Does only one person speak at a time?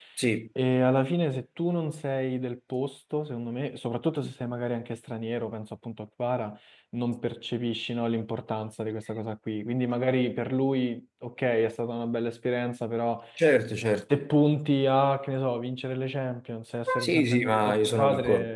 No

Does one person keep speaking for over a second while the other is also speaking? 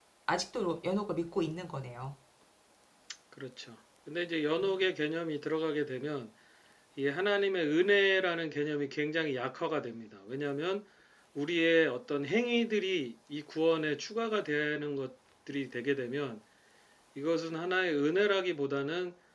No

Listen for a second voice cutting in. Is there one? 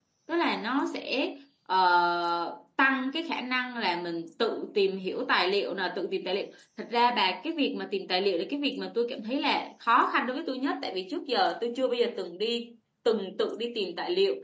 No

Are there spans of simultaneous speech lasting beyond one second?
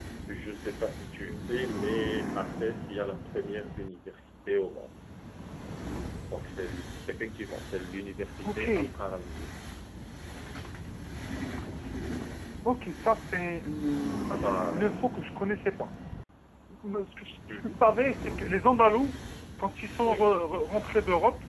No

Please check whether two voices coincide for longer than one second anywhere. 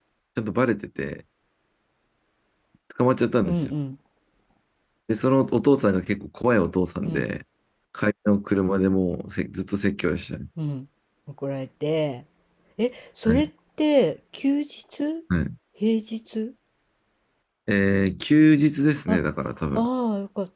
No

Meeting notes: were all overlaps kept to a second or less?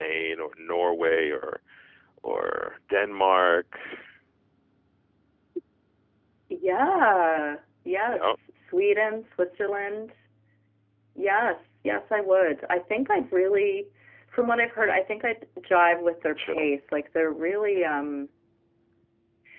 Yes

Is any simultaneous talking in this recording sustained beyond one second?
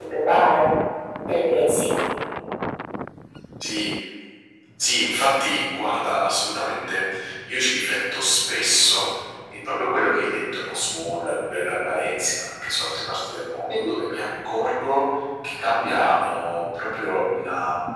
No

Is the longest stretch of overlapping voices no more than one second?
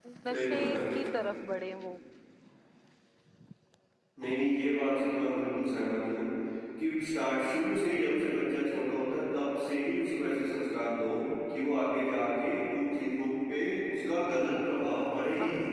Yes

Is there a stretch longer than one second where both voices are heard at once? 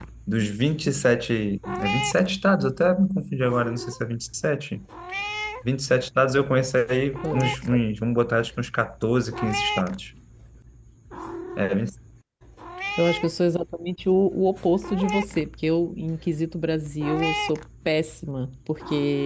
No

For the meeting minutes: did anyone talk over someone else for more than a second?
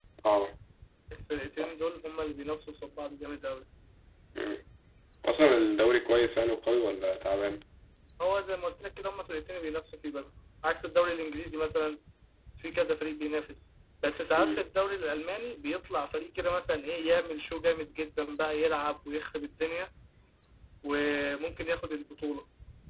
No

